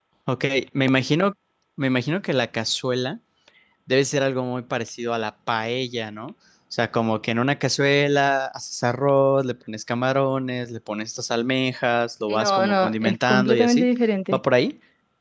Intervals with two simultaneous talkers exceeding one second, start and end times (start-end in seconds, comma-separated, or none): 12.3-13.9